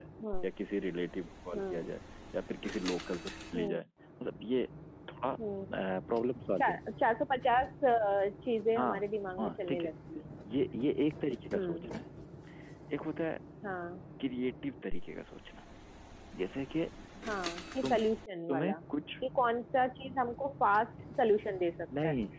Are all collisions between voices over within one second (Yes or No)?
Yes